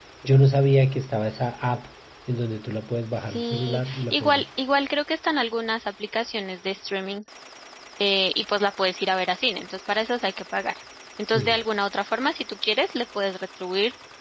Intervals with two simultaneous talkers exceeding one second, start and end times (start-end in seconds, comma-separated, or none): 3.2-4.4